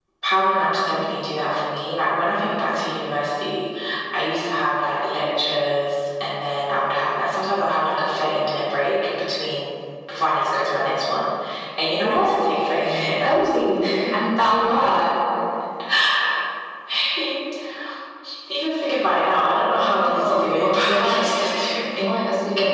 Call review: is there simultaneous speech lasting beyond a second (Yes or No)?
Yes